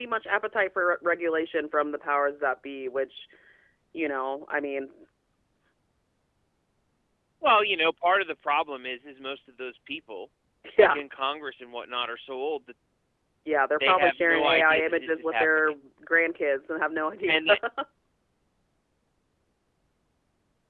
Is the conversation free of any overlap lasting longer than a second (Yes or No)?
No